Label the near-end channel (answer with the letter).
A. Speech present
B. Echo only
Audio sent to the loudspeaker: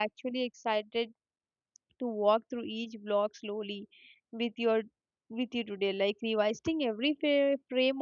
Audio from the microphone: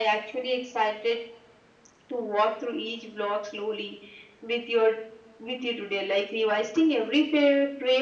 B